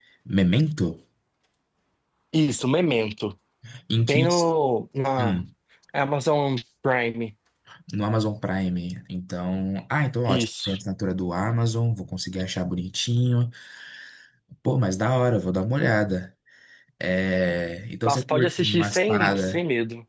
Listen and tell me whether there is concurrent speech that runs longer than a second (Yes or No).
Yes